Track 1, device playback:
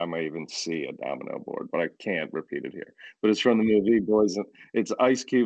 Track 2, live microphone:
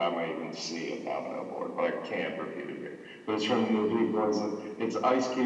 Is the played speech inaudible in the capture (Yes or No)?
No